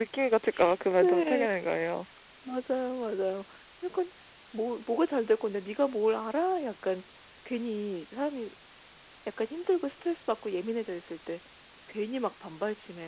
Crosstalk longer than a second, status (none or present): none